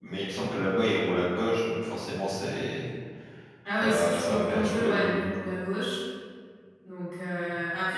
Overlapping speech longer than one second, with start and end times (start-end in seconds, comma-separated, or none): 3.8-5.3